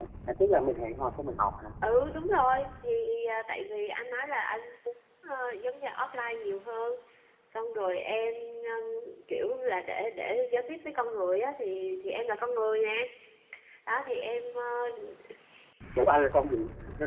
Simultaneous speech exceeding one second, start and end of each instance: none

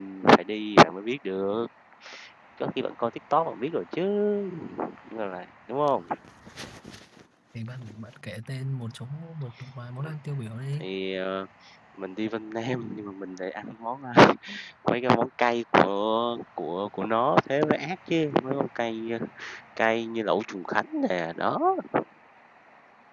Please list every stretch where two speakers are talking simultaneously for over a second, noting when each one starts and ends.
none

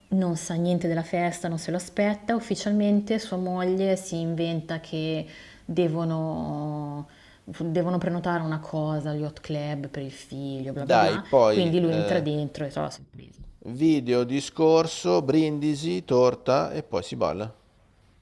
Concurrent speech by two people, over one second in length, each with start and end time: 10.9-12.3

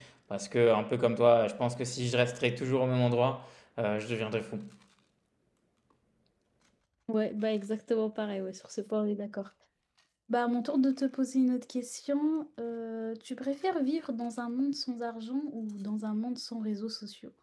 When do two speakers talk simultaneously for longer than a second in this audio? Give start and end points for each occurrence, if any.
none

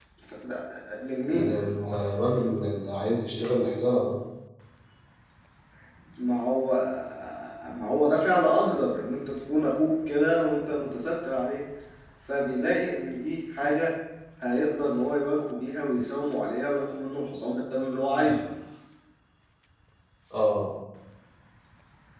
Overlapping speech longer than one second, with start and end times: none

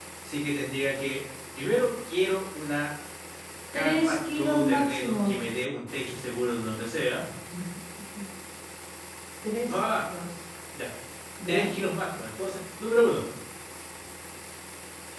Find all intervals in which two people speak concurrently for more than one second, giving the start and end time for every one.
3.8-5.2

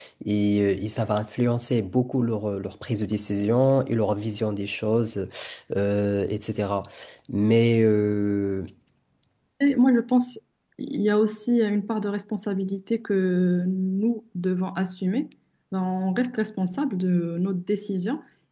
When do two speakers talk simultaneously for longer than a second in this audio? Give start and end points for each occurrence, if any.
none

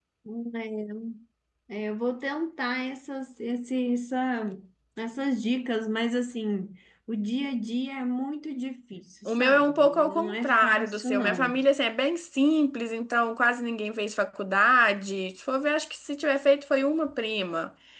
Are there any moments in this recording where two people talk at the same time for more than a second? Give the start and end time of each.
9.2-11.6

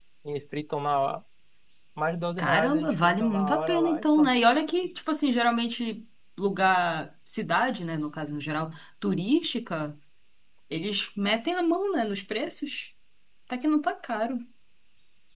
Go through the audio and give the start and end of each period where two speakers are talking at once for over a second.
2.4-4.3

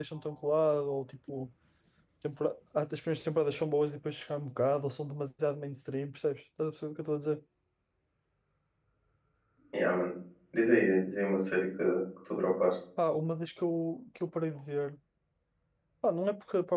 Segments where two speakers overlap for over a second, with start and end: none

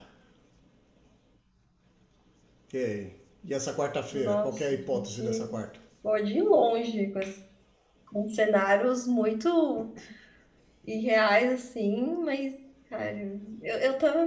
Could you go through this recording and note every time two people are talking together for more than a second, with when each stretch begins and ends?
4.1-5.6

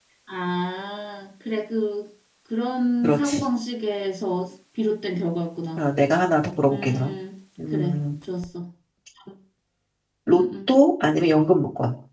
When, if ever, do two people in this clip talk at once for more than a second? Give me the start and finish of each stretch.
none

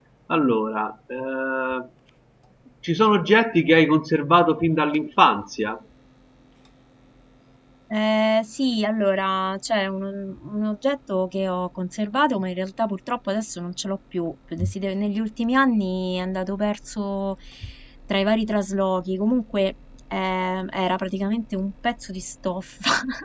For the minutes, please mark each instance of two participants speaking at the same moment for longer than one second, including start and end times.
none

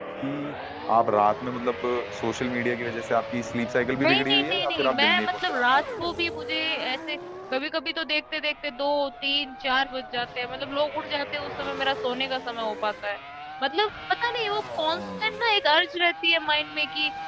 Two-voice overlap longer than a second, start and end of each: 3.9-5.8

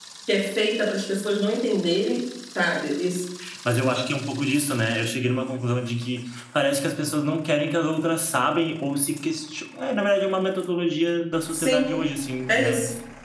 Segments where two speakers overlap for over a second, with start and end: none

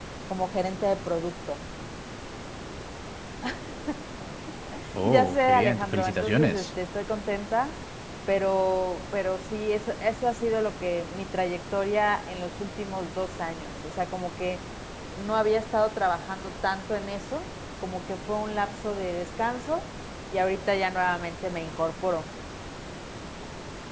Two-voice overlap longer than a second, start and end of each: 5.0-6.7

